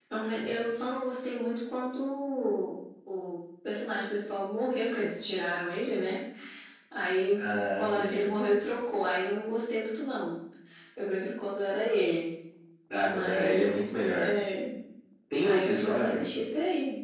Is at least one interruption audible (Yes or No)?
Yes